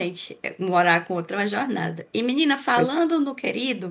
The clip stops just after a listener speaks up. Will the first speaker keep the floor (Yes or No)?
Yes